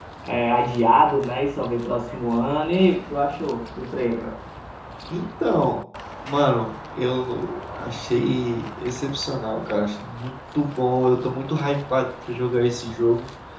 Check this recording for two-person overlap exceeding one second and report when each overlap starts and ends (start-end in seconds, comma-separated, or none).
none